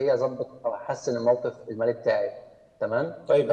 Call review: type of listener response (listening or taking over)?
taking over